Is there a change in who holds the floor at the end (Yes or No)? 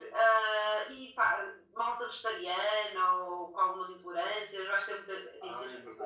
Yes